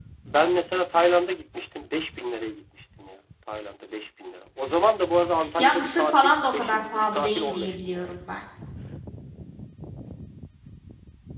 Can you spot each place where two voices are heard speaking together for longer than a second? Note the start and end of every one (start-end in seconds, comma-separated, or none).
5.6-8.1